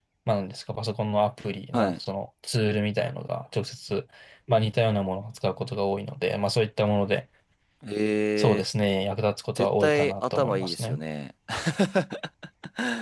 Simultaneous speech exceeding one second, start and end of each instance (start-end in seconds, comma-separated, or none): 9.6-11.0